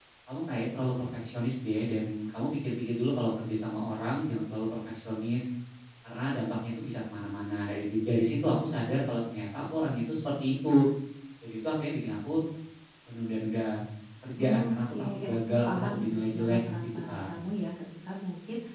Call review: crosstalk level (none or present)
present